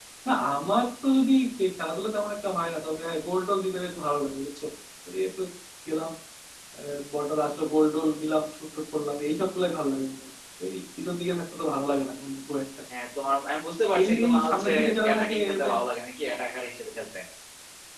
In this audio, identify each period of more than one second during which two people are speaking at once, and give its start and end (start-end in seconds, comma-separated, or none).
14.0-15.8